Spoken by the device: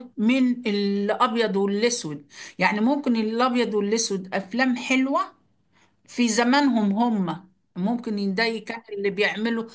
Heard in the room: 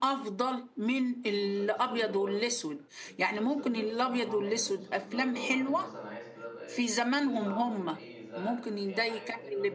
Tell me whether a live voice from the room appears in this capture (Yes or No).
Yes